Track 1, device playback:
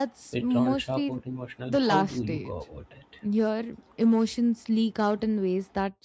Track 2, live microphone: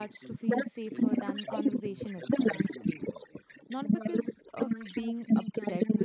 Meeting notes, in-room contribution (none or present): present